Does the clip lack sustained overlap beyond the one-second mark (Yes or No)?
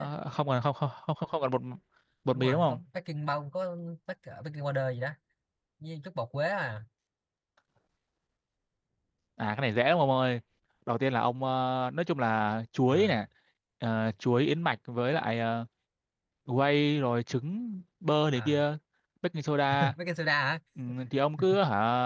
Yes